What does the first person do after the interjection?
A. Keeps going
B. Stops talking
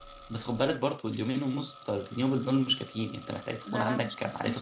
B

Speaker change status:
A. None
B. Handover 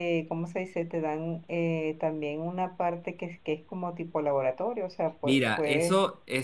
B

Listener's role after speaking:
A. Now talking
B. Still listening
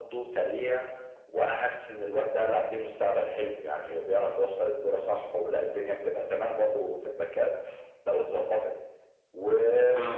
B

